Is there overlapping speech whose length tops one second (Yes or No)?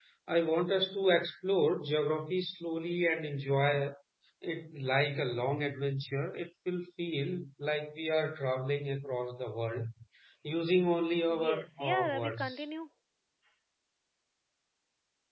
Yes